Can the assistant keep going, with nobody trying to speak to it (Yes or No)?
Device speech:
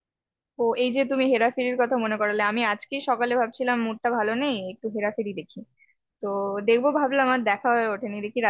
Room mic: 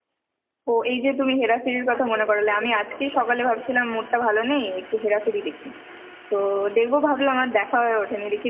No